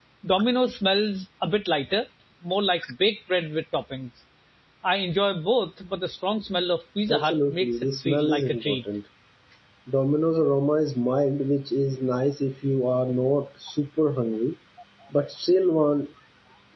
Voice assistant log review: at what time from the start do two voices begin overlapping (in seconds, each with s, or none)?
7.1 s